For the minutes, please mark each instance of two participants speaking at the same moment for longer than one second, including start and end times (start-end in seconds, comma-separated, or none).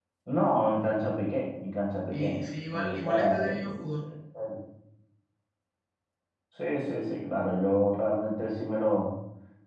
2.1-4.0